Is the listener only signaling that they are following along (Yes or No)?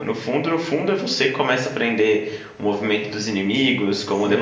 No